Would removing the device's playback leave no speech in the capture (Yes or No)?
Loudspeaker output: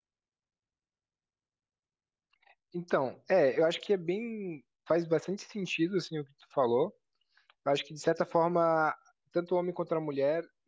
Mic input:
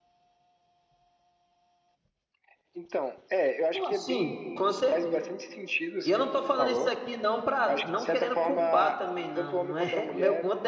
No